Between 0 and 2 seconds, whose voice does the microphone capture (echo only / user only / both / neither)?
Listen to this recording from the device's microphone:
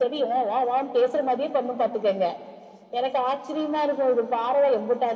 echo only